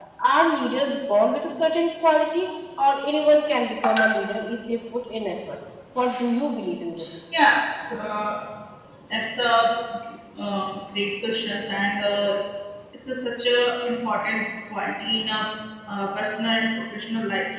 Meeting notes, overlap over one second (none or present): none